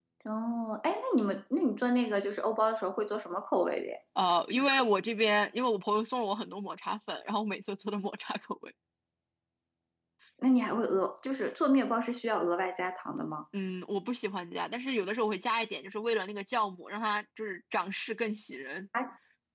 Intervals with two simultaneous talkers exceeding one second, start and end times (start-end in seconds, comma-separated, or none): none